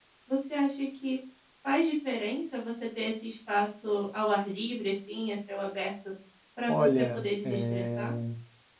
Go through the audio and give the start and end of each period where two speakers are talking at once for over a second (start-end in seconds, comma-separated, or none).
6.7-8.1